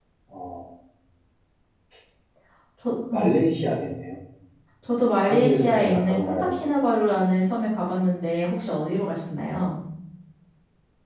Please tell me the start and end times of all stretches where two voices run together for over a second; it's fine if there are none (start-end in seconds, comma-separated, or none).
5.2-6.7